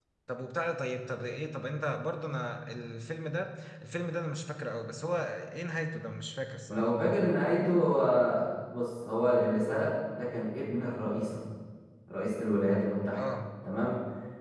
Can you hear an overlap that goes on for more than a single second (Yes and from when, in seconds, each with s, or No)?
No